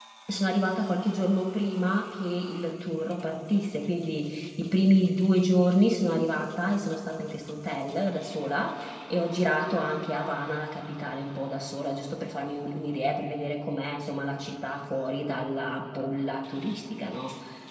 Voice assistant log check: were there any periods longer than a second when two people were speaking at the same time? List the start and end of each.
none

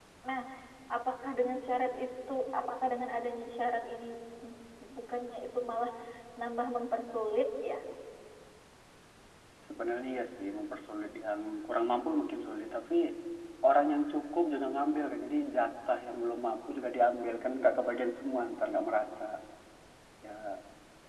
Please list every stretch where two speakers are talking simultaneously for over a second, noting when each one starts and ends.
none

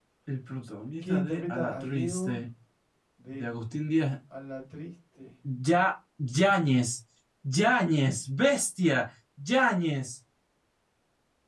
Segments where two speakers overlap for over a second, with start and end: 1.1-2.4

